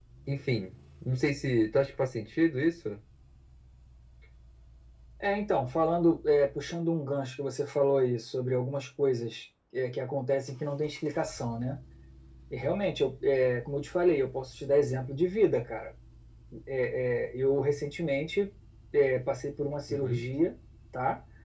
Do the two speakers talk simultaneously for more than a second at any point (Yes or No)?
No